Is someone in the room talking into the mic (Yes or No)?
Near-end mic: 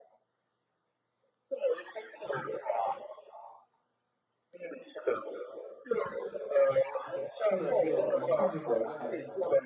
Yes